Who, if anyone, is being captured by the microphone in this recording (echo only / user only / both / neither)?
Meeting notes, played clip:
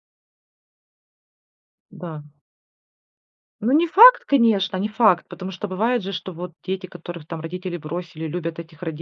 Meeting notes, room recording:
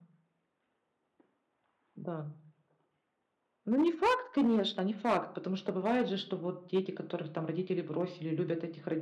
echo only